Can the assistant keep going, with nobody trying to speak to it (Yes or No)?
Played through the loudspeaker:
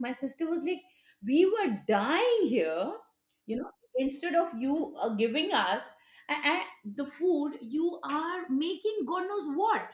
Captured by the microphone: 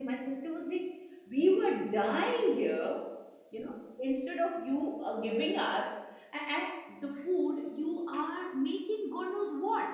Yes